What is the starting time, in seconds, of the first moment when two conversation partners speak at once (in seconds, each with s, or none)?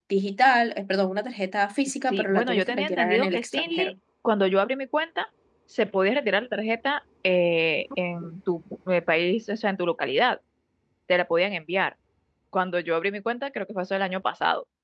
2.1 s